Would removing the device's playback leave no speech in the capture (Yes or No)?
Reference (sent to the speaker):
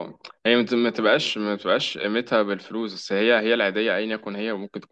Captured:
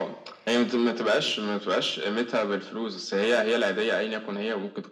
Yes